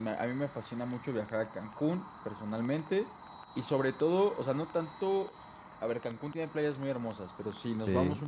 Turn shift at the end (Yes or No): No